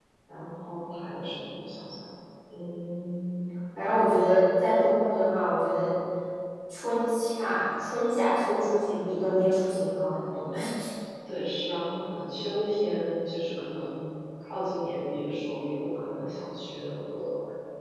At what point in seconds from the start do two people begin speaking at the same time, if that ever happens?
none

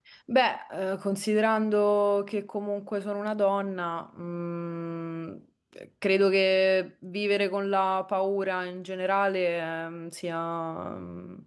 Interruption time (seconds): none

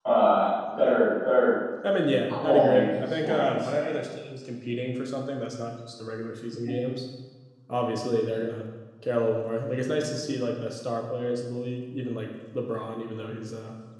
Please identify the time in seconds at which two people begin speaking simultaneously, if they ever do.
2 s

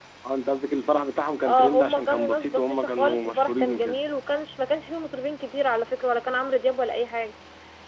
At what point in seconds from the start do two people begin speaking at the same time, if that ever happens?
1 s

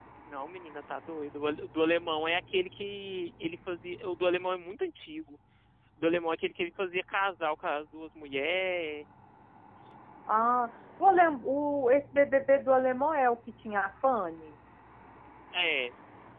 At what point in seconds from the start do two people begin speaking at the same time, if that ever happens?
none

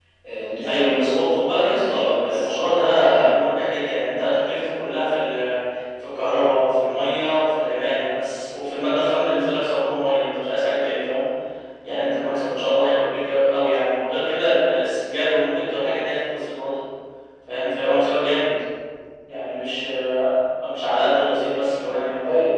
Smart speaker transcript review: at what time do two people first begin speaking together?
1 s

